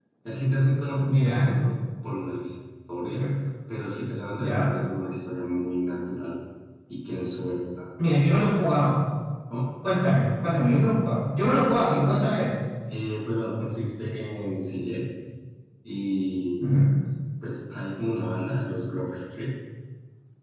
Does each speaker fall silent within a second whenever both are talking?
Yes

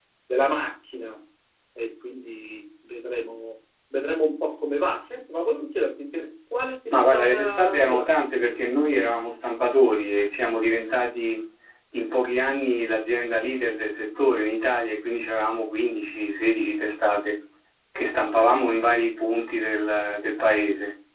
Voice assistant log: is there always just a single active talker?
No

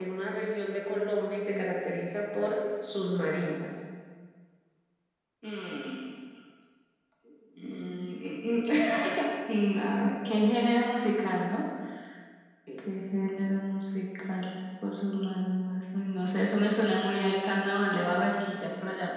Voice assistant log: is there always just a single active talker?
Yes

